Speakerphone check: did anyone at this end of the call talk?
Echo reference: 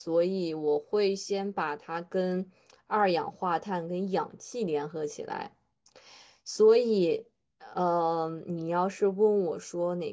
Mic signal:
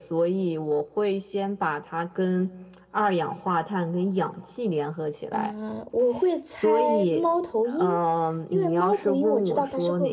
Yes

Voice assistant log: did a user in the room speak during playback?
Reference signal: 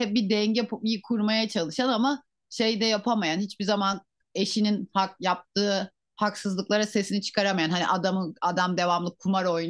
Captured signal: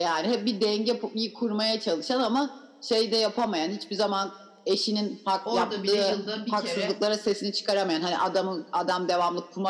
Yes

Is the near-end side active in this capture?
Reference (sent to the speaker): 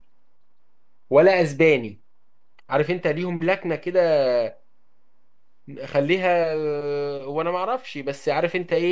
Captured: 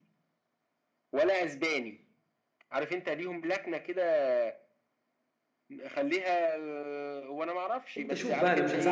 Yes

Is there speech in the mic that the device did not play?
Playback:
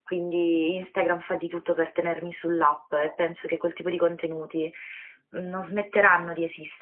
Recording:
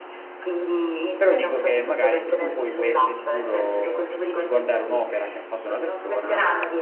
Yes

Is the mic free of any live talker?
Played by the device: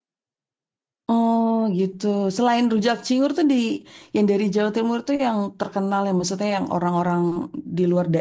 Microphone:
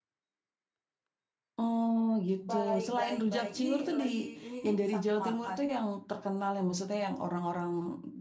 No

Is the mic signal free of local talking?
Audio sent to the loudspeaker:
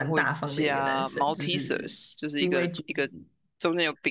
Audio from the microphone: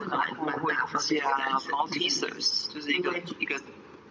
Yes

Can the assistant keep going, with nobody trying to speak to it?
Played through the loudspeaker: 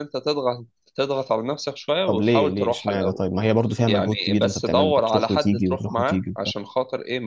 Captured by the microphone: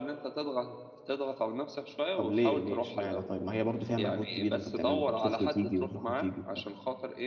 Yes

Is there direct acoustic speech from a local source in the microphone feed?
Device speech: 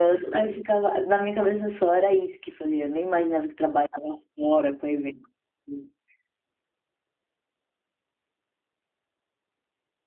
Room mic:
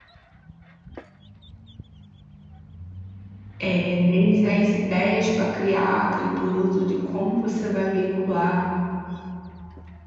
Yes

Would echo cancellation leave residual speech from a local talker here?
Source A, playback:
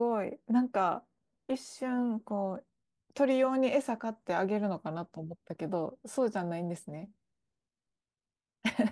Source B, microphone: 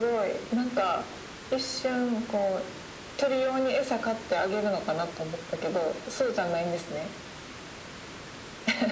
No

